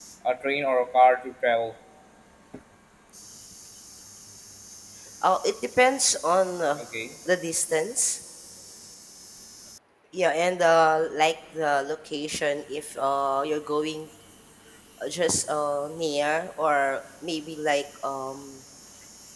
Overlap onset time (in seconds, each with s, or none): none